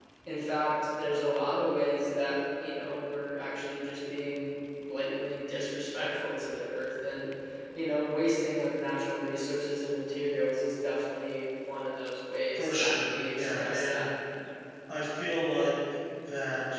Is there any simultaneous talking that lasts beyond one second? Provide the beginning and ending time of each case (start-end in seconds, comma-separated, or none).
12.5-14.0